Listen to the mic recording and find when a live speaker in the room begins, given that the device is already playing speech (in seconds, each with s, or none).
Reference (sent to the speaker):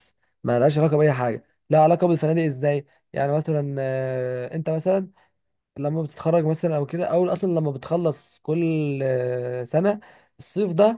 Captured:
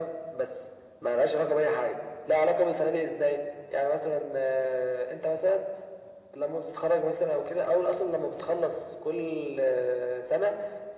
none